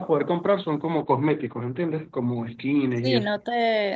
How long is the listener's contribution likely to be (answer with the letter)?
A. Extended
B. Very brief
A